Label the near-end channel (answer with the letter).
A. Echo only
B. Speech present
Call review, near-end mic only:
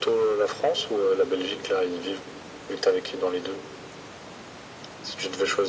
A